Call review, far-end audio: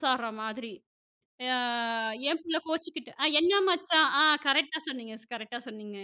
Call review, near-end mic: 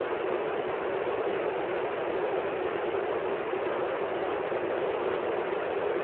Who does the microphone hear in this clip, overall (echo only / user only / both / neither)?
neither